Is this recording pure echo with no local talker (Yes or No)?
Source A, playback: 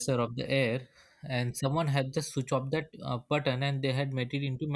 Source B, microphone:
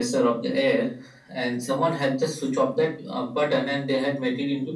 Yes